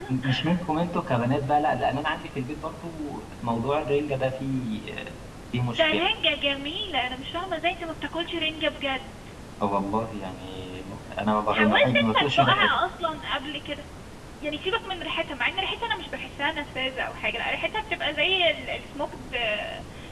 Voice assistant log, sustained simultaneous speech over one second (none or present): present